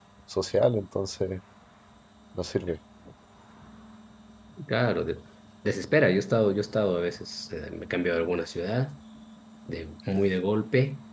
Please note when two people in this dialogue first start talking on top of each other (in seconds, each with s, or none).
none